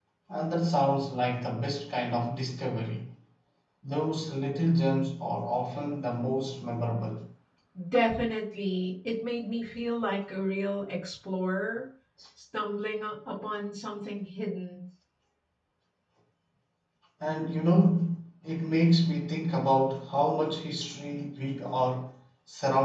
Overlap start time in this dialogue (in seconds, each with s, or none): none